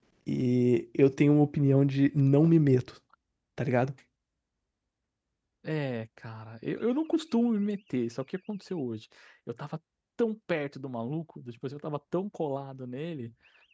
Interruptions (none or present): none